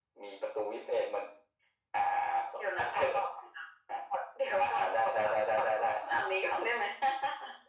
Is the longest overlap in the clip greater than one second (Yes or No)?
Yes